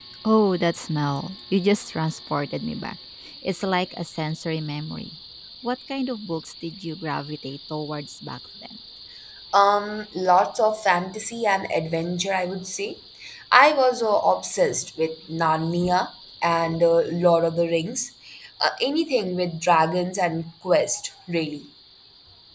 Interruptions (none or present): none